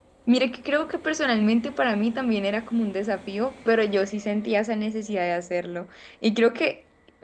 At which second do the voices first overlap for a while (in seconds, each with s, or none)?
none